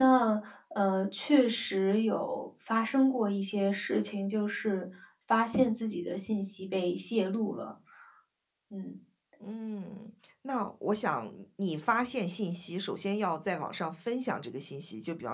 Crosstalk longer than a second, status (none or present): none